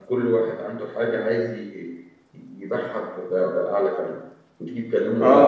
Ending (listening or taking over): taking over